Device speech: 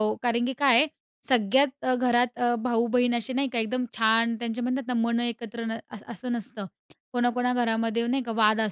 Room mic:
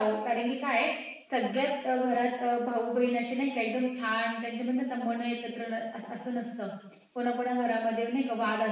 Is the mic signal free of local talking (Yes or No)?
Yes